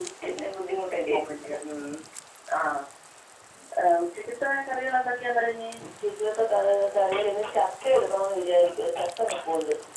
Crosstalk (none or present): none